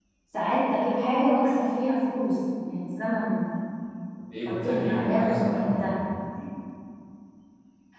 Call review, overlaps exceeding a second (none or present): present